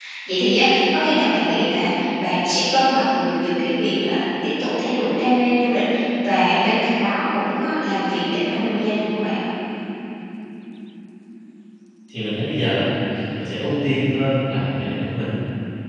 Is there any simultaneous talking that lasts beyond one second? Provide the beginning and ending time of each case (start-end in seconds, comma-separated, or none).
none